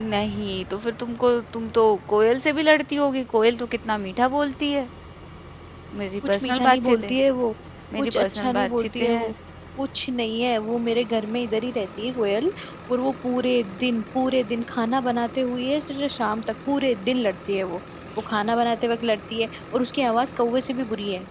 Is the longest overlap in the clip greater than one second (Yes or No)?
Yes